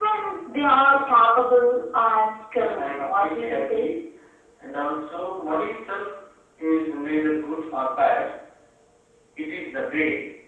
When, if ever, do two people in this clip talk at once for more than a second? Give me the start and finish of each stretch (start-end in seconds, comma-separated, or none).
2.6-3.9